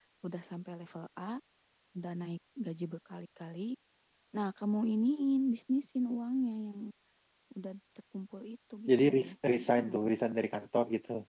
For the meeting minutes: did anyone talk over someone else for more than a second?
Yes, from 8.9 s

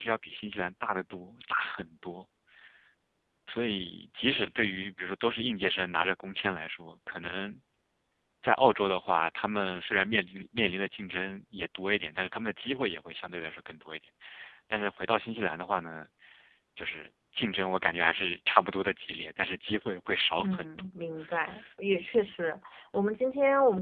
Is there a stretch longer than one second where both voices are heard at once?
No

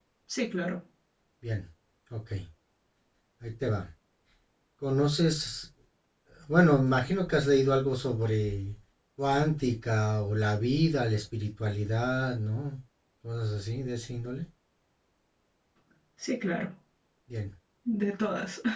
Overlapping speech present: No

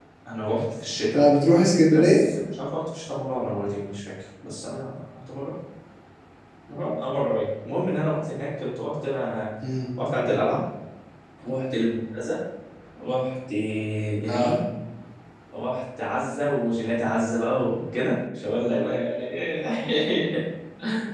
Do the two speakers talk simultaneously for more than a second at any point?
No

